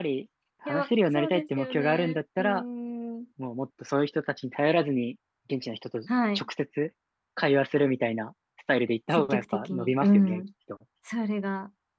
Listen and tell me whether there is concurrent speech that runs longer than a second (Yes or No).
Yes